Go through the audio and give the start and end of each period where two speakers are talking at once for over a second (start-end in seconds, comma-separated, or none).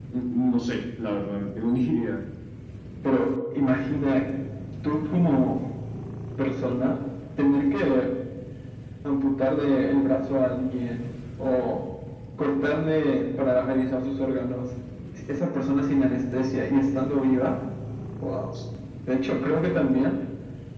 none